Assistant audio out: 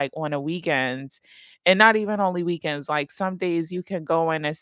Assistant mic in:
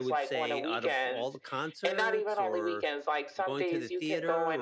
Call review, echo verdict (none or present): present